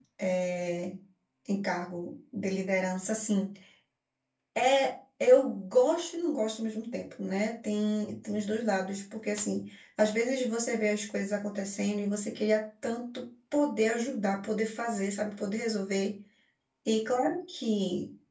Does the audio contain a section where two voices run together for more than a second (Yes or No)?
No